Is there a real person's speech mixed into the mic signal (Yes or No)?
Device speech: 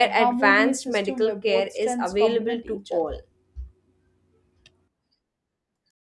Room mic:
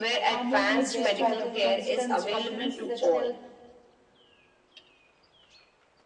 Yes